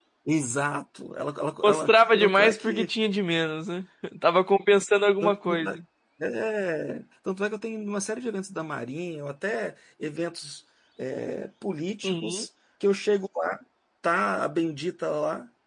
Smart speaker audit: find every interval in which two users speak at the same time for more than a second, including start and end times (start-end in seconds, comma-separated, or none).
1.6-2.9